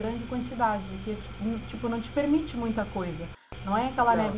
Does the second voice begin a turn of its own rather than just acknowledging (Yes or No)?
No